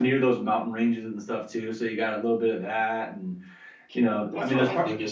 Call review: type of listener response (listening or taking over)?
taking over